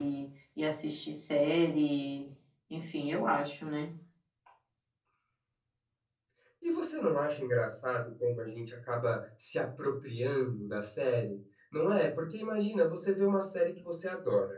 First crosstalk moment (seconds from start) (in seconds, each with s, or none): none